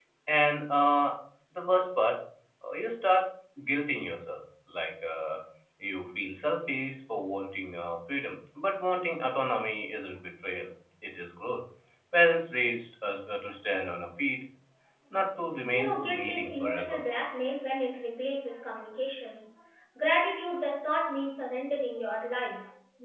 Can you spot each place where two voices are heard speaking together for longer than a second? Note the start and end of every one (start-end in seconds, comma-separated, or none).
15.7-17.0